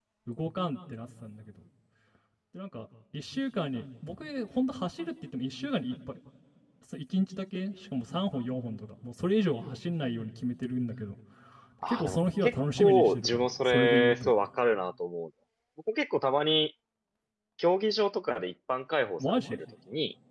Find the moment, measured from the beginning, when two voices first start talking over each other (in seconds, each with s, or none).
11.9 s